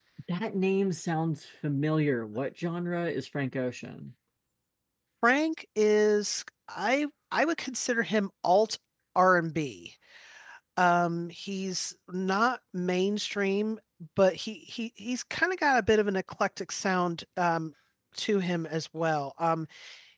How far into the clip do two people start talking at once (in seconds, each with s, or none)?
none